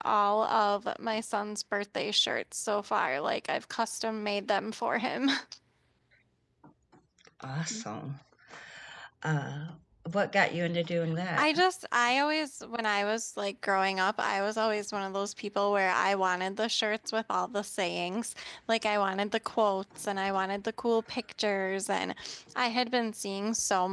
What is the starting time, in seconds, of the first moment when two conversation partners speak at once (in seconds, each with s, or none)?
none